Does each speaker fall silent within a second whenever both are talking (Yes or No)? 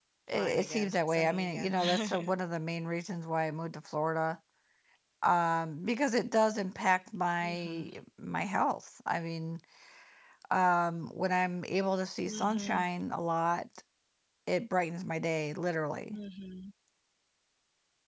No